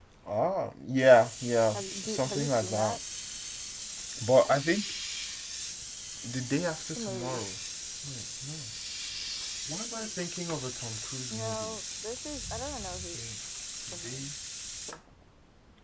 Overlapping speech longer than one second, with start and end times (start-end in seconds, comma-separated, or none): 1.7-3.0